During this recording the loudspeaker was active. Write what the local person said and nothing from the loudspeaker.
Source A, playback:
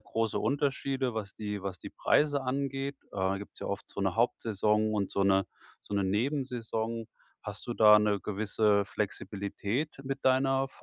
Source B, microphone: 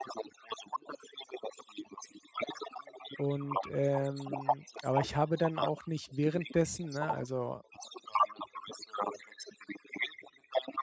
Und, ähm aber ich habe dann auch nicht währenddessen ne, also

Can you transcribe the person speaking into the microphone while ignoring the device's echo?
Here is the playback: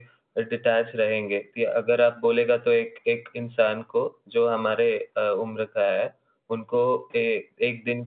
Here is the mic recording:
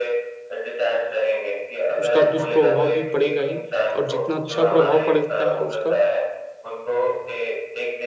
उसका दुष्प्रभाव भी पड़ेगा ही और जितना अच्छा प्रभाव पड़ता है उसका

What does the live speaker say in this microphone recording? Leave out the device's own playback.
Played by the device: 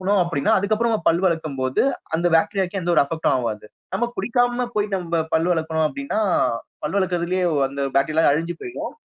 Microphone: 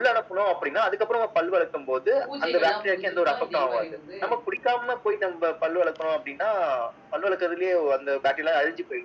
பூஜைகள்லாம் முடிச்சிட்டு தான், இதே மாரி வந்து

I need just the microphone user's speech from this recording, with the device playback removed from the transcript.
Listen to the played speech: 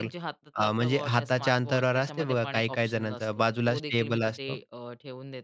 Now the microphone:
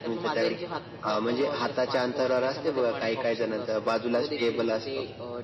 none

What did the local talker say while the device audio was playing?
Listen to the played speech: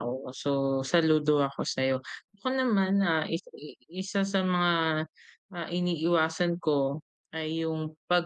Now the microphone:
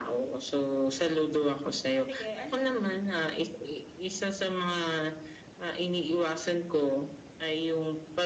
sige, ano yun?

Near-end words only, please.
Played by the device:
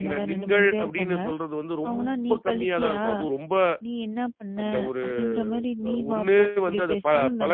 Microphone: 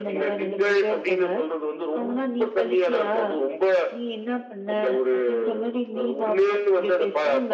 none

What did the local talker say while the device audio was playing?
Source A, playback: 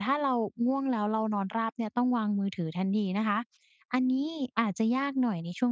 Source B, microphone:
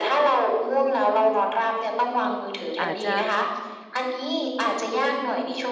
อาจจะ

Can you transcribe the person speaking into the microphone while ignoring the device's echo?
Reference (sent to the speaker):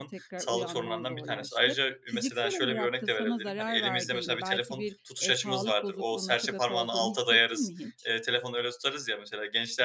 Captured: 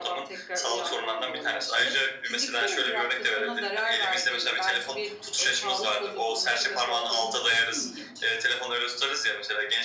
none

